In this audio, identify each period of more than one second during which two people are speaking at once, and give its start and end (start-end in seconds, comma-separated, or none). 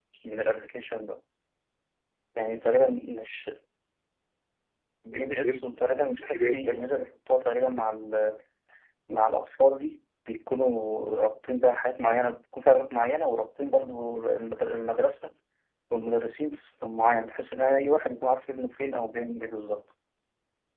5.1-6.8